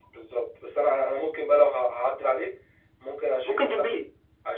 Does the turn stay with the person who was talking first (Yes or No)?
Yes